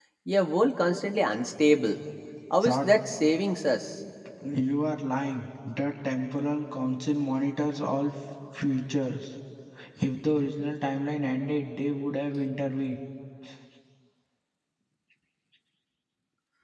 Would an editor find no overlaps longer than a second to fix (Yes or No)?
Yes